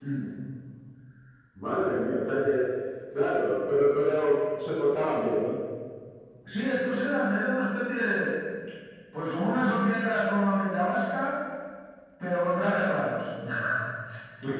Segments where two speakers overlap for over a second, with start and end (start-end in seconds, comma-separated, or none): none